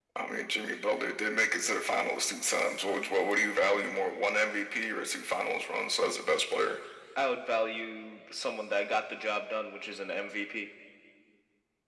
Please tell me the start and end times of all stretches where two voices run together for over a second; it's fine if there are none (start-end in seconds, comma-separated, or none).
none